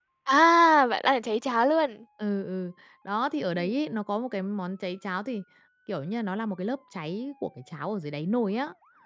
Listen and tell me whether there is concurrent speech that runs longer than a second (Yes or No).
No